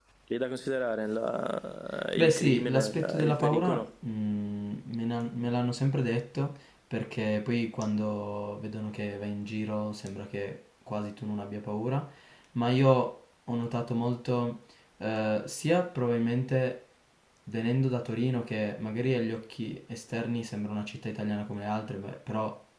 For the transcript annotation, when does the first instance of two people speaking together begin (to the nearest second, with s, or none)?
2 s